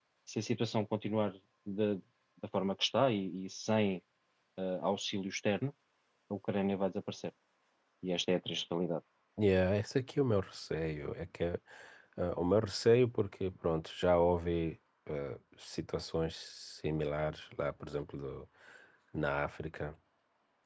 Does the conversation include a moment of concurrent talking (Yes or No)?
No